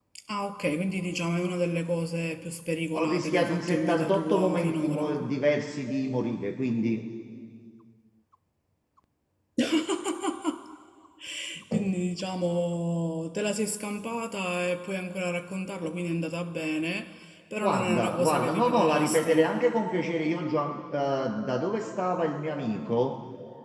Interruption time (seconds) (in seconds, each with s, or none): 2.9 s